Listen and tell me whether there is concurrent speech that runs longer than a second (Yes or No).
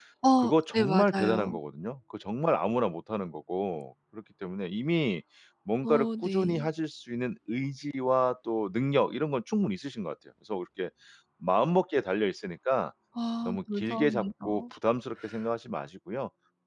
Yes